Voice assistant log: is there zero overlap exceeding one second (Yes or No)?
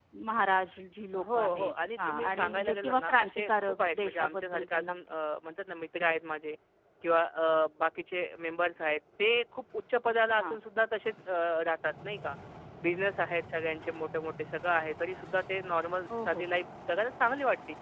No